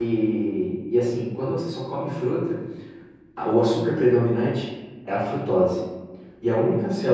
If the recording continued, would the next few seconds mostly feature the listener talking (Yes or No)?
No